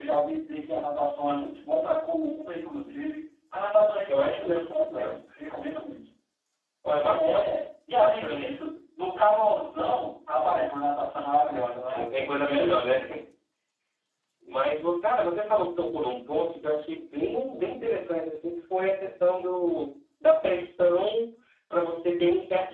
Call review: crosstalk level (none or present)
present